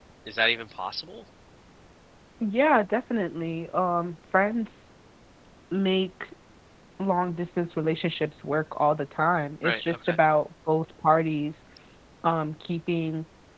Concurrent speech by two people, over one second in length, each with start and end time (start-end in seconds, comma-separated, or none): none